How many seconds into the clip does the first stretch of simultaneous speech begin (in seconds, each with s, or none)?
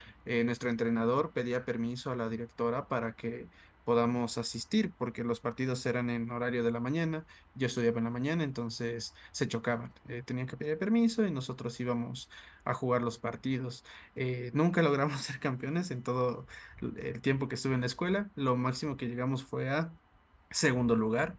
none